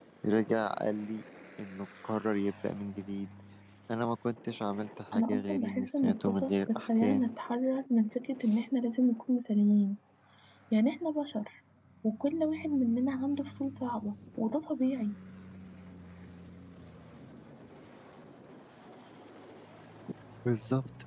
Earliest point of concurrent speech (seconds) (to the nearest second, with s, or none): 5 s